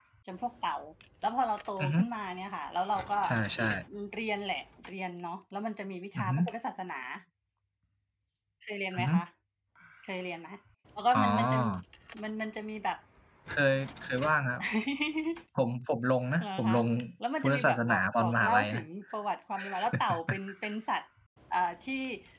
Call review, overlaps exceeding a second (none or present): present